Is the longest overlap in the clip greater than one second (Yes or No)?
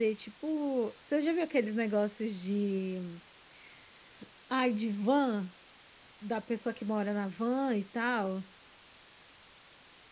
No